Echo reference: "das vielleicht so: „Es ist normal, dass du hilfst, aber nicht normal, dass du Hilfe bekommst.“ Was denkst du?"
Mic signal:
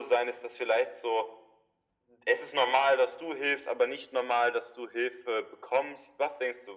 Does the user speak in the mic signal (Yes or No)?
No